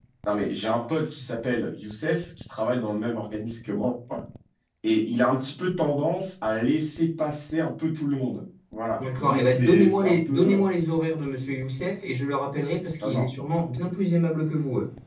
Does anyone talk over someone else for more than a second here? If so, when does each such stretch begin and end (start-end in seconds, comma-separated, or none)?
8.9-10.6